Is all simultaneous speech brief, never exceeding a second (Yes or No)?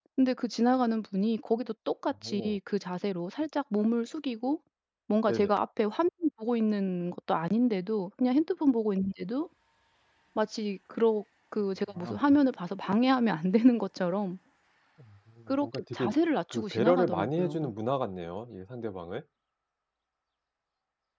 No